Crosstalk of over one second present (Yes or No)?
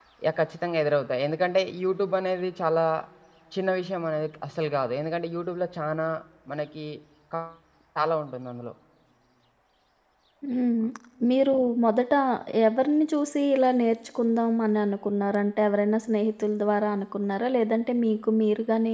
No